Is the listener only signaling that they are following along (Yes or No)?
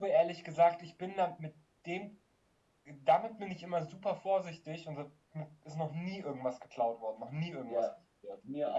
No